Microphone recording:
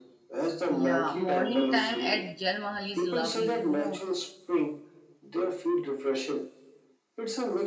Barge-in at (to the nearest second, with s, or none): 1 s